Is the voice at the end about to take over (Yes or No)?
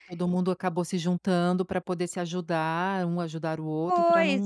Yes